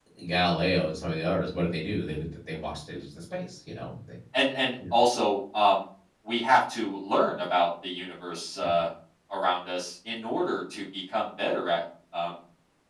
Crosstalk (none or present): none